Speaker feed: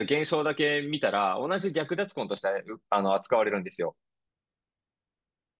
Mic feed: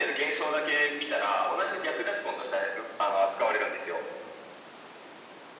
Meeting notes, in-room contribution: none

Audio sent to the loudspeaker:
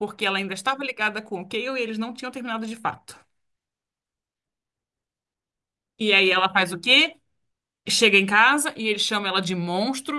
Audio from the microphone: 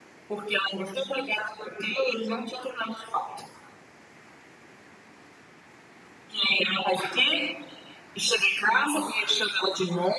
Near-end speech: none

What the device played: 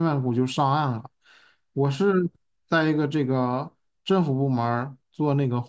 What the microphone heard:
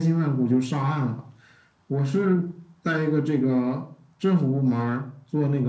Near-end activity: none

